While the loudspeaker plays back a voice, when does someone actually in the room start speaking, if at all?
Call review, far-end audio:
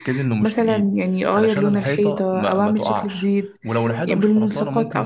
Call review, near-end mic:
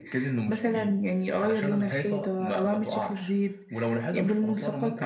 none

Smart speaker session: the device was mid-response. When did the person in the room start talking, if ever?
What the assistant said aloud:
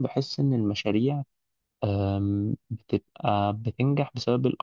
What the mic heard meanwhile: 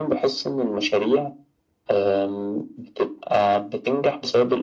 none

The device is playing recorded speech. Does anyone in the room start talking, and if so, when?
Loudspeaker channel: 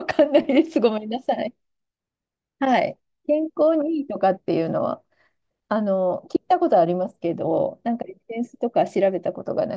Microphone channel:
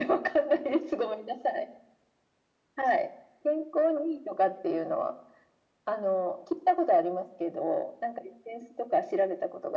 none

